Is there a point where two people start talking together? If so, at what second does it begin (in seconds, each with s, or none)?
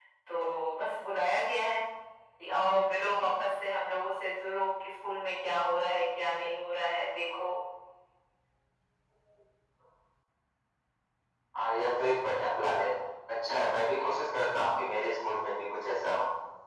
none